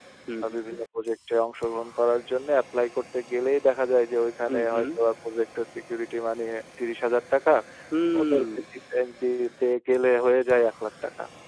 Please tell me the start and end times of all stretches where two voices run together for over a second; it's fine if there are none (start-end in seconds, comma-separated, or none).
none